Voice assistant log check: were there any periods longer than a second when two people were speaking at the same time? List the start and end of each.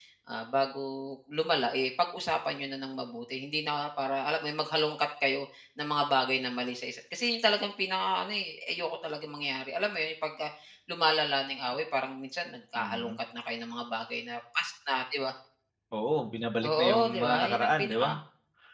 16.7-18.1

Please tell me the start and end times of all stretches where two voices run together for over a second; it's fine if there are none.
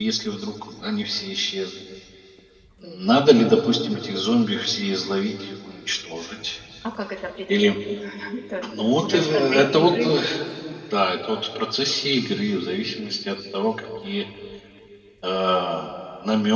8.7-10.1

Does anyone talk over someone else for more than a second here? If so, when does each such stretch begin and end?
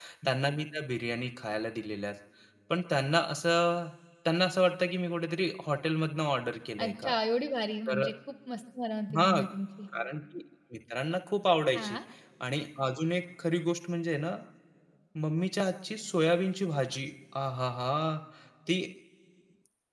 none

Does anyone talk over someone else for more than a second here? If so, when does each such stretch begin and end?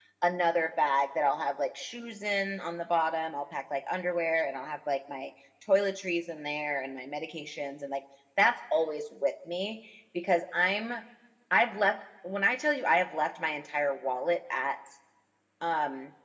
none

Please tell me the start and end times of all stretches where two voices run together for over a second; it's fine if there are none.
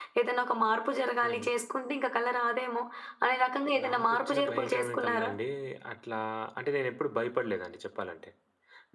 3.8-5.3

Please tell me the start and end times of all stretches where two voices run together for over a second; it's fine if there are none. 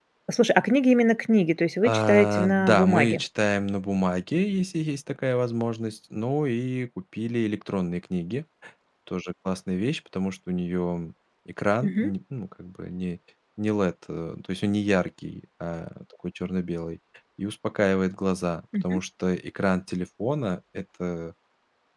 1.8-3.2

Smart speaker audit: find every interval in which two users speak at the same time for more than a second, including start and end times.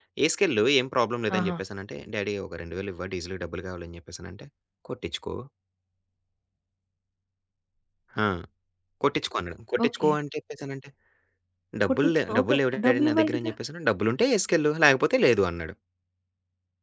11.9-13.5

